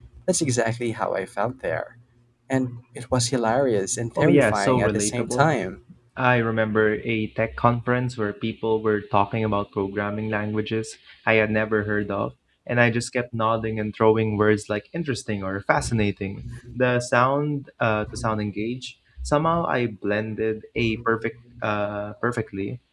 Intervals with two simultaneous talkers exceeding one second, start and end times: 4.2-5.5

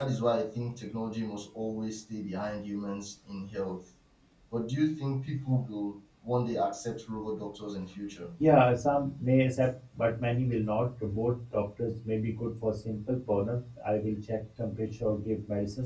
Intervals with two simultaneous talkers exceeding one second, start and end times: none

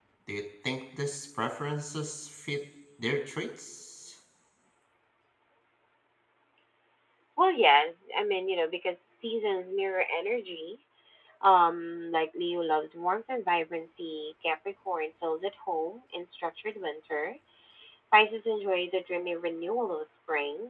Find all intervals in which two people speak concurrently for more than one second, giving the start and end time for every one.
none

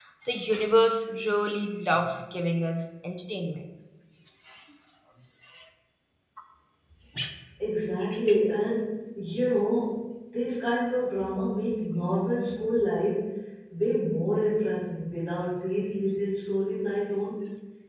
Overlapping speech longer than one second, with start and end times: none

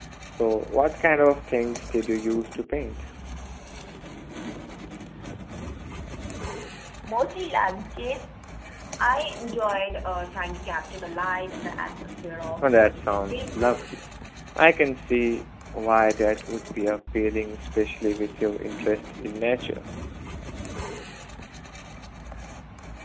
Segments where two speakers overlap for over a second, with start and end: 12.6-13.8

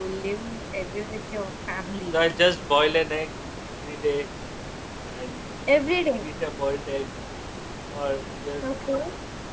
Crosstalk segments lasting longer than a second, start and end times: none

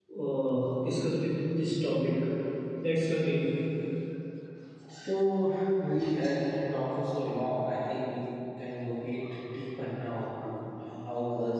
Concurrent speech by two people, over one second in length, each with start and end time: none

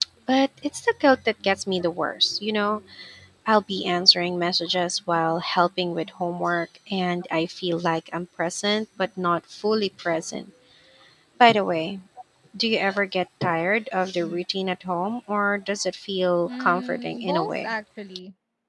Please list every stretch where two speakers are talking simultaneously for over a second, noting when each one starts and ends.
16.5-17.7

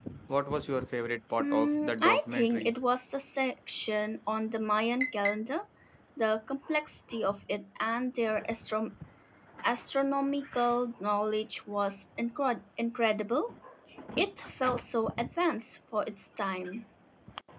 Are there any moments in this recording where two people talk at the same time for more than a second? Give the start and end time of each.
1.4-2.7

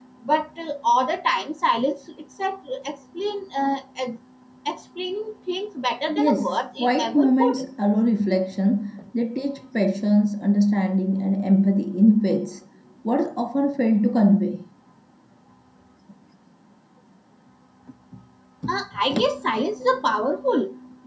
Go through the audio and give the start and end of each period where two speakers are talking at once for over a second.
6.2-7.7

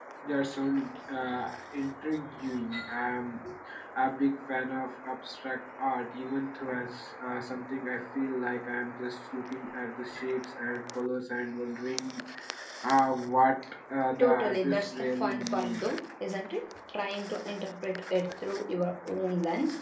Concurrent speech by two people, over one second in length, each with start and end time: 14.2-15.8

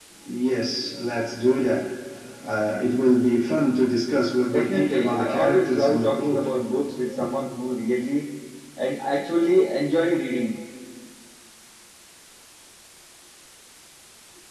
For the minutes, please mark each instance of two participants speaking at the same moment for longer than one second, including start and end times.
4.5-6.5

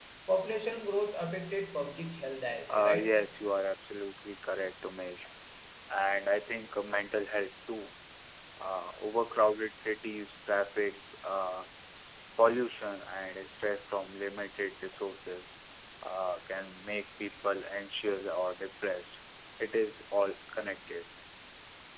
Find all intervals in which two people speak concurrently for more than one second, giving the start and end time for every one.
none

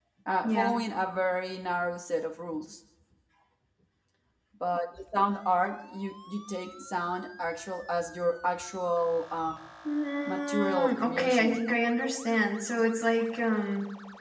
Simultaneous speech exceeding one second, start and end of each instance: 10.2-11.6

